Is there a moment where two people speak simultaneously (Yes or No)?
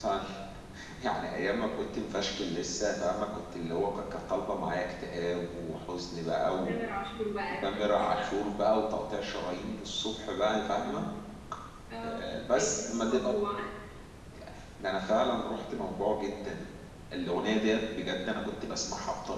Yes